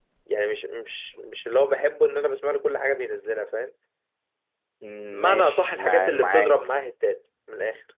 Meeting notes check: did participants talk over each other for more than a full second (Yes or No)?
Yes